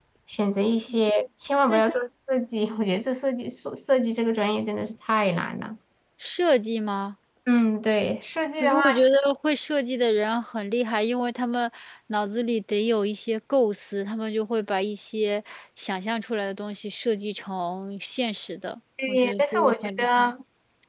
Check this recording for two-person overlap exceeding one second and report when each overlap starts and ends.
19.1-20.3

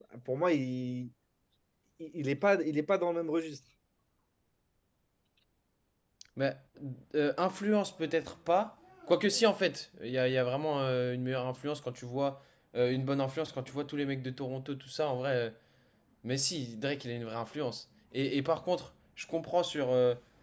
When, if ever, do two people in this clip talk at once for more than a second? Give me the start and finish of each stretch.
none

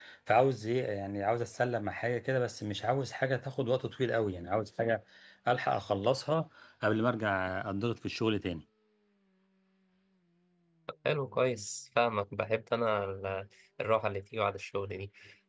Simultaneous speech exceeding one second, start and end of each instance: none

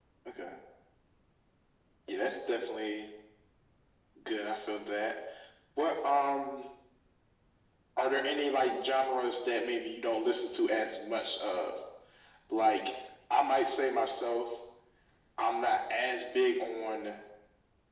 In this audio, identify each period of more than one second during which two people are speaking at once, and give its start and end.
none

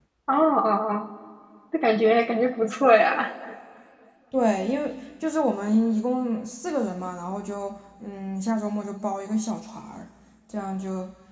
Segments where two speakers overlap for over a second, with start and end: none

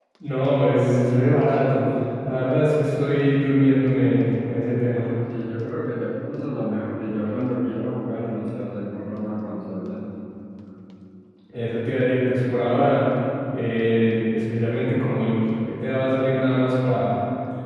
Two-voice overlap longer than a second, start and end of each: none

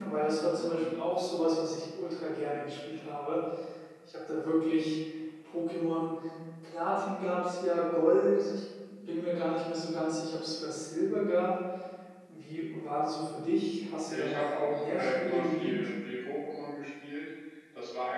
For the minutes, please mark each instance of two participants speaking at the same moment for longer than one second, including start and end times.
14.1-15.9

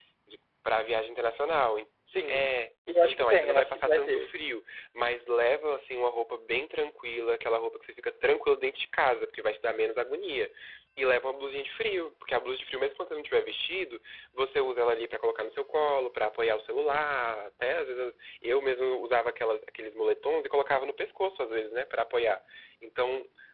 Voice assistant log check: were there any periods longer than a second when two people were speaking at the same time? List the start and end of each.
3.0-4.3

